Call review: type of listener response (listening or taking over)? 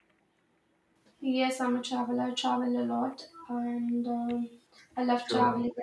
listening